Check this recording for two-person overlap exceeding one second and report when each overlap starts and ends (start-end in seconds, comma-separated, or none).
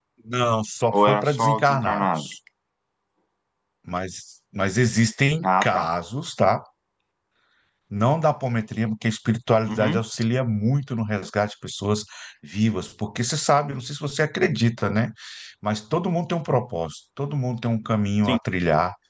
0.9-2.3